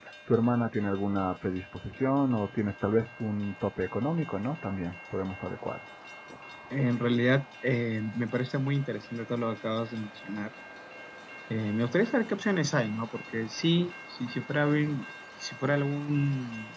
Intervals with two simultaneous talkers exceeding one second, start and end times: none

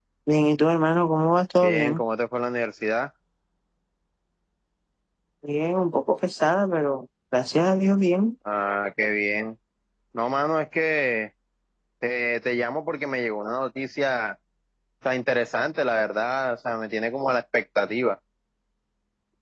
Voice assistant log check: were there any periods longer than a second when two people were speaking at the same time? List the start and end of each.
none

